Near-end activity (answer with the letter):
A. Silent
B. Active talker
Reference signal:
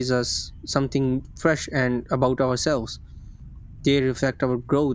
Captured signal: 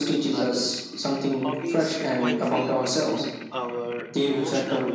B